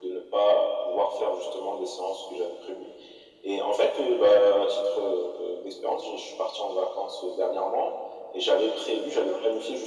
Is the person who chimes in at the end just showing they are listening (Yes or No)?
Yes